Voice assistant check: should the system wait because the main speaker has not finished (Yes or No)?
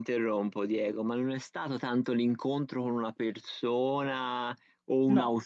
Yes